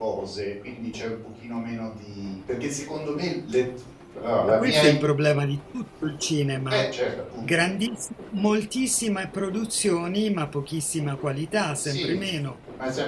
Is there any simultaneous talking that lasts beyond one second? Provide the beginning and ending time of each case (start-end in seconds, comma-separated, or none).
none